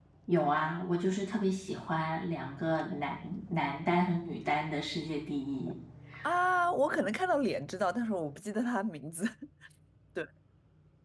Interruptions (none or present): none